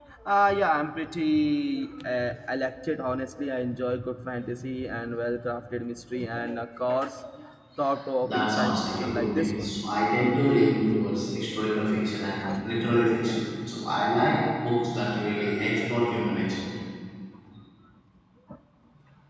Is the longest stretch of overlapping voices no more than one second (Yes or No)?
No